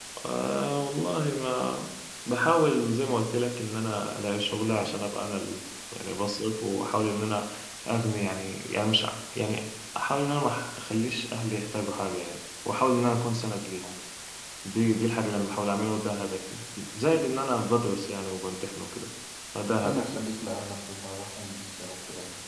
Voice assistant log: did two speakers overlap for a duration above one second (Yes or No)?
No